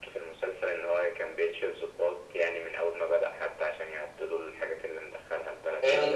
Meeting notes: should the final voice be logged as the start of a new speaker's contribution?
Yes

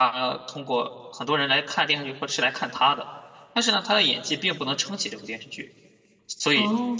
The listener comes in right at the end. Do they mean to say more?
No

